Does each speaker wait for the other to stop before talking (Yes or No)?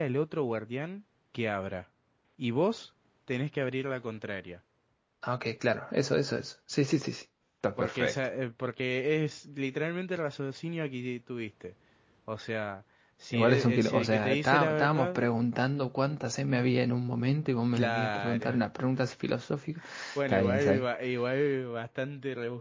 No